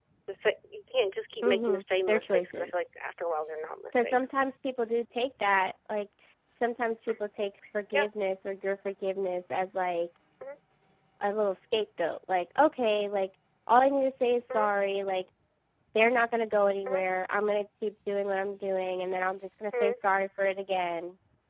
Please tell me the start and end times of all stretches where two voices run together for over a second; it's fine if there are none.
1.4-2.7

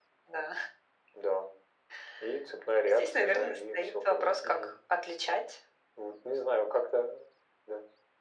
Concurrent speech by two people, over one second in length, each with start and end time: 2.9-4.7

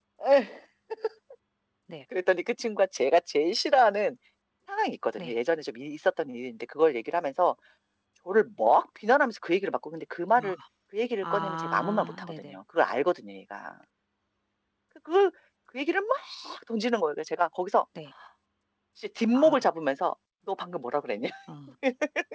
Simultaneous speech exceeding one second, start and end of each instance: 11.2-12.6

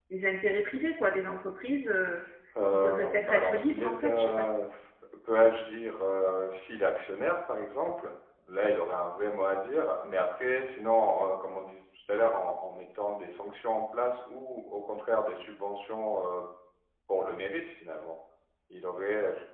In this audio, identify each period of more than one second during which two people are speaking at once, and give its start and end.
2.7-4.5

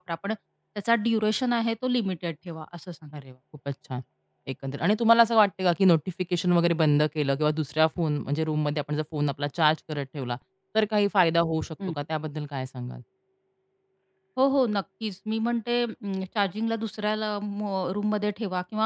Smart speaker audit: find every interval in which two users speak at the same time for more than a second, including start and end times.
none

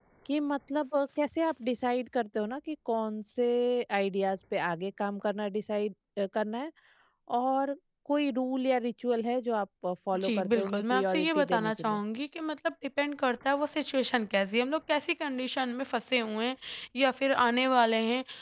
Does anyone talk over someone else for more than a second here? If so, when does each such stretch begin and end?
10.2-12.0

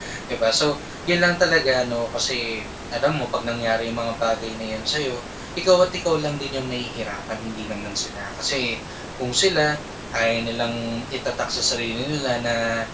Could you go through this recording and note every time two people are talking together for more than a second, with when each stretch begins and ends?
none

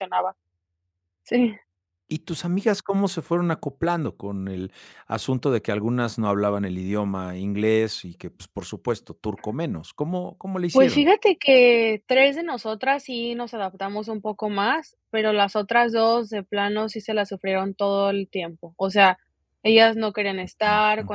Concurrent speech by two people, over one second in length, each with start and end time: none

